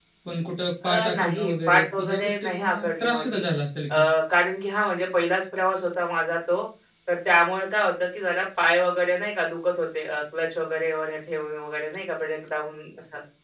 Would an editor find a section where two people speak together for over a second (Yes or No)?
Yes